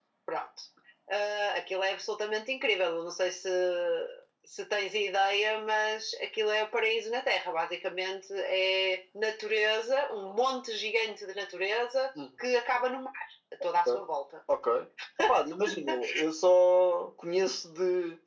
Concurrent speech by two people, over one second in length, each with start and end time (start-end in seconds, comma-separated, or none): none